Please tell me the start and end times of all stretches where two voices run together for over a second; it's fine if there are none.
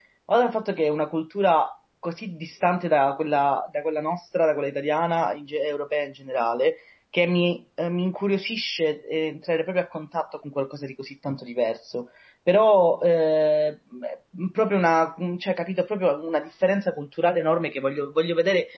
none

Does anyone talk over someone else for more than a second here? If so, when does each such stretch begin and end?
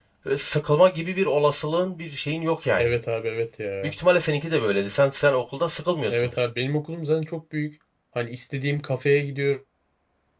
none

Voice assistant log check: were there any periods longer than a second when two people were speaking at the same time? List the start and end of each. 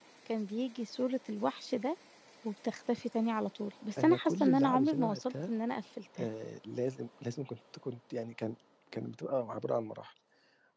4.0-5.5

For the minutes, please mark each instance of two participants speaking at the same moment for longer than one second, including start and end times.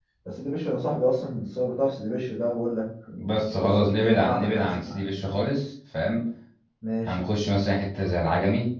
3.4-5.0

